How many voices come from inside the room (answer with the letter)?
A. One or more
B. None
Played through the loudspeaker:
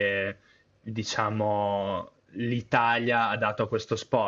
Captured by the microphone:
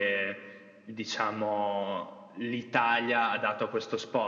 B